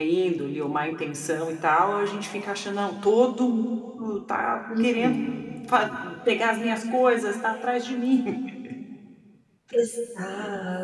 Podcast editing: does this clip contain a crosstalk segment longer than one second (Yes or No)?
No